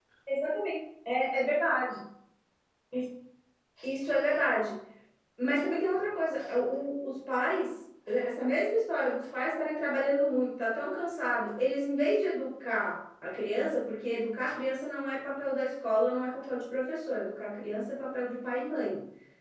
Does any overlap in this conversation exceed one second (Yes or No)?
No